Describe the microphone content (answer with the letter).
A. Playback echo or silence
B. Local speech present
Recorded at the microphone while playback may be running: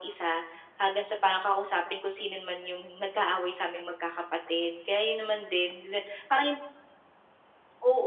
A